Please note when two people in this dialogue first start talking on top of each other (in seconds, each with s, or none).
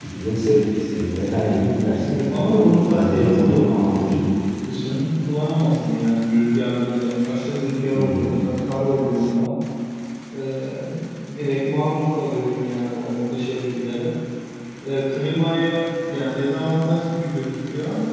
2.0 s